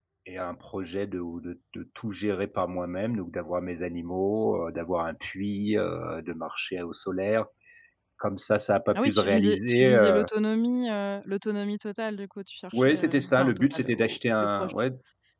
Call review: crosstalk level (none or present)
present